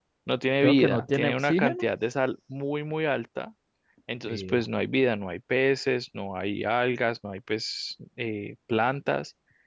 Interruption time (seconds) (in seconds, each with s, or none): 0.6 s